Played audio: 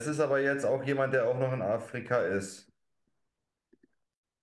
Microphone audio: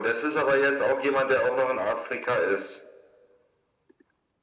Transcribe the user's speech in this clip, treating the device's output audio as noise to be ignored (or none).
none